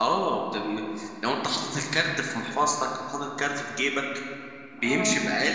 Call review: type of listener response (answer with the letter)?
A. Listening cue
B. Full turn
A